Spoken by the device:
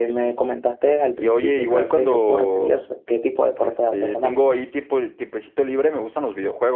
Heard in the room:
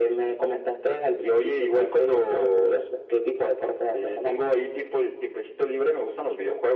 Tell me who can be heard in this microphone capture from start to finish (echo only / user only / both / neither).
echo only